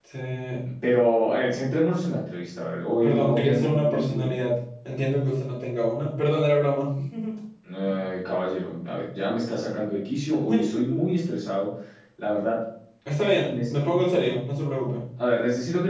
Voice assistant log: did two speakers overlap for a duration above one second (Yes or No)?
Yes